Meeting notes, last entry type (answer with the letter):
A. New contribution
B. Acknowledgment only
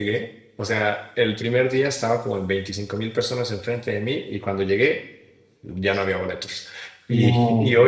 B